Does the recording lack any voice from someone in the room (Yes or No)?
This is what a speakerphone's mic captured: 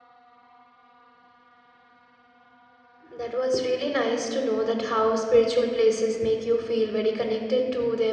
No